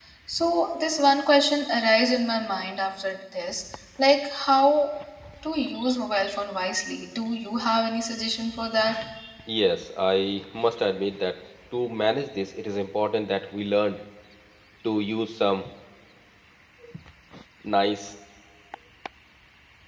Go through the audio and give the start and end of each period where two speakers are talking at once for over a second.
none

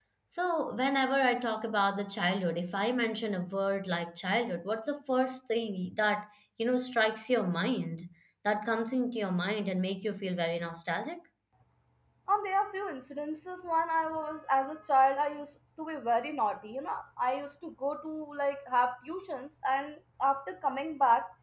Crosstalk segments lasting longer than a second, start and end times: none

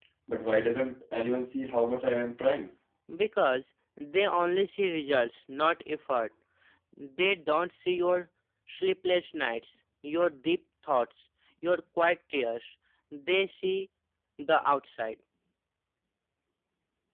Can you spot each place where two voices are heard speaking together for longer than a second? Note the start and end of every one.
none

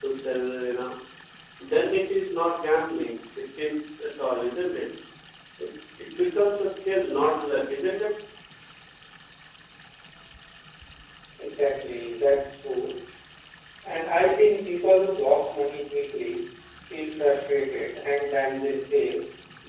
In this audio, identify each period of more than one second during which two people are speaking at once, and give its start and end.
none

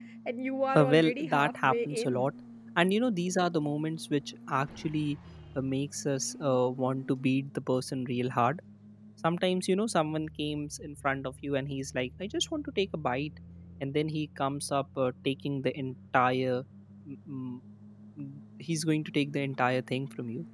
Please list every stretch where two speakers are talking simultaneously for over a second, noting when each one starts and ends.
0.8-2.3

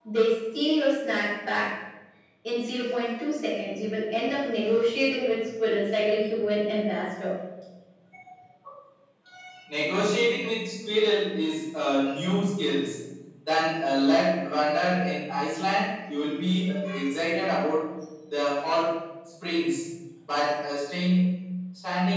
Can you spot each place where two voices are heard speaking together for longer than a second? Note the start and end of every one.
none

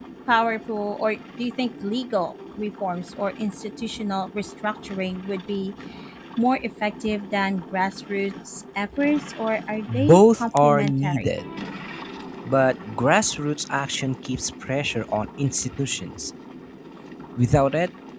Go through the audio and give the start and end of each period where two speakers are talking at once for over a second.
10.1-11.4

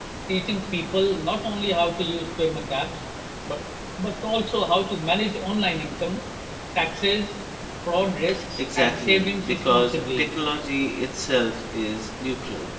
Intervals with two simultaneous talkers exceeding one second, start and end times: 8.6-10.2

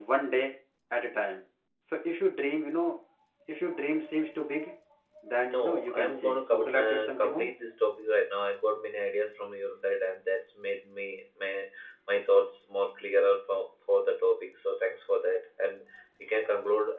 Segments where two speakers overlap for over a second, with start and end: 5.5-7.5

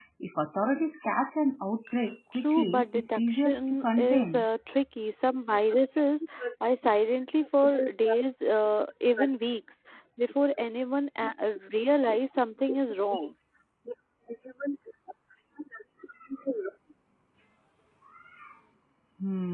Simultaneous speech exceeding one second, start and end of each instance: 2.4-4.4

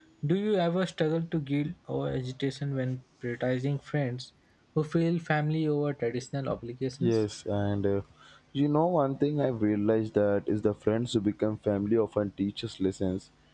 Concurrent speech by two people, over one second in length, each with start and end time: none

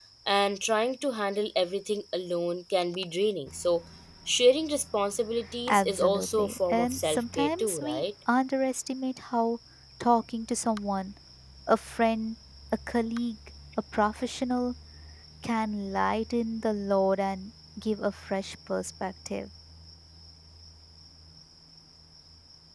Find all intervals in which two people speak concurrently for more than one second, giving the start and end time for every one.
5.7-8.0

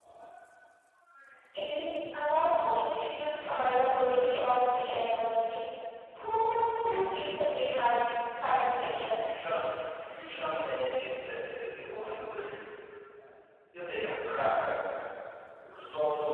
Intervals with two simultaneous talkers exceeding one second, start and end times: none

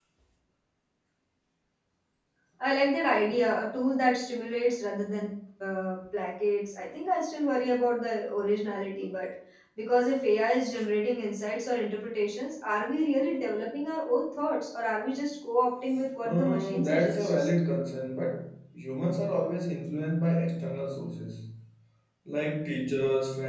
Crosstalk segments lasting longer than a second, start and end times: 16.2-17.5

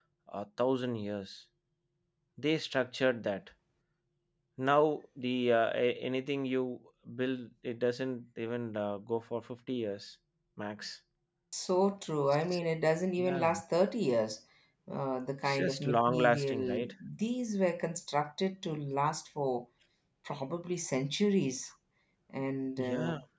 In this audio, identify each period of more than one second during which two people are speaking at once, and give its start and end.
15.4-16.9

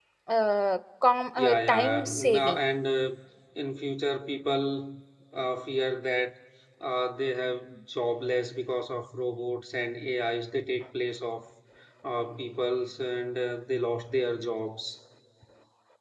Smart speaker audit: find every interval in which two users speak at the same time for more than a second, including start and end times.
1.4-2.6

